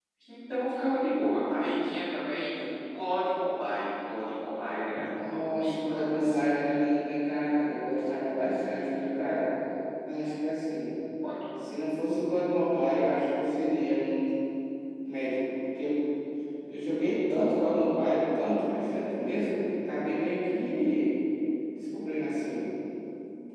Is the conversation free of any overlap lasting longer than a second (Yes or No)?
No